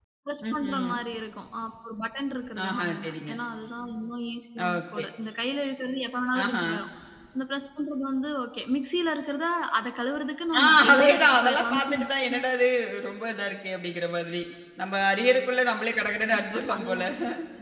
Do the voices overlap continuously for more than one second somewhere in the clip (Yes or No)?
Yes